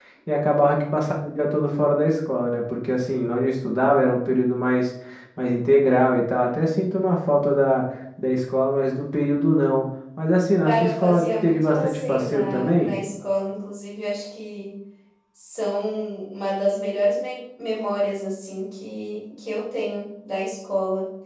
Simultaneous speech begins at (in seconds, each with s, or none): 10.6 s